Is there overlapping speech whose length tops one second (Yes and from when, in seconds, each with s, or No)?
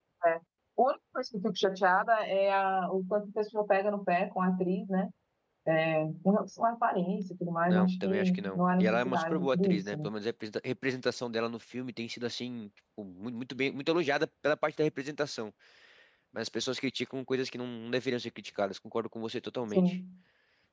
Yes, from 7.6 s